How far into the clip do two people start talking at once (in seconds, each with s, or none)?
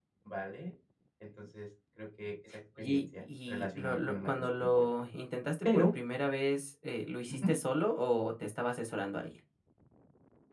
2.8 s